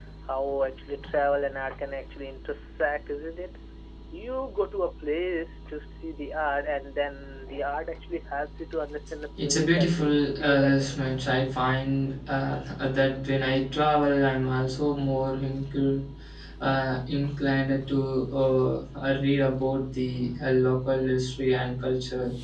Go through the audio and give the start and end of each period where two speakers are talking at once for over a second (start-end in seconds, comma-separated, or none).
9.4-10.9